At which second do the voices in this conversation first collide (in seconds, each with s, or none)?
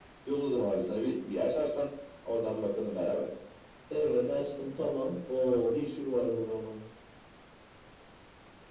none